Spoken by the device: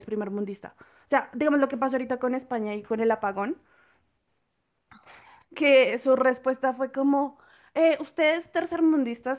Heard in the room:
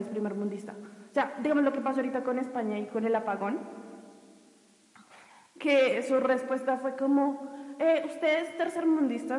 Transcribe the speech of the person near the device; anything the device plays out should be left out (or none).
none